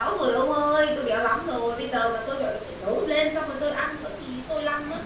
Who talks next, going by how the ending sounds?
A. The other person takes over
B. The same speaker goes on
A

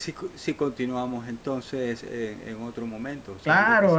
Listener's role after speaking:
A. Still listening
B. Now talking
B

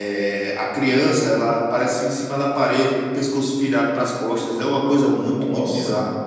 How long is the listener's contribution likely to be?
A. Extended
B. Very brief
A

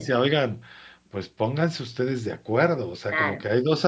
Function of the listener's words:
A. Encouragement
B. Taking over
A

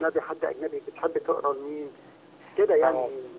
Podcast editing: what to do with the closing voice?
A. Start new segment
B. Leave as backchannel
A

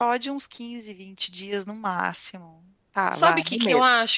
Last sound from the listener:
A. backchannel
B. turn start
B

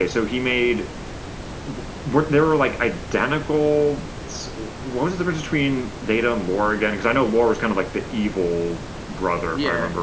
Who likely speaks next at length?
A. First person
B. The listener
B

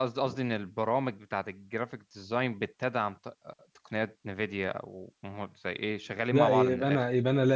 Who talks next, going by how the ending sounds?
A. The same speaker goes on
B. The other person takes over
B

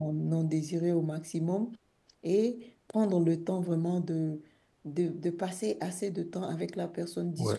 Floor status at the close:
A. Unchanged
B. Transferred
A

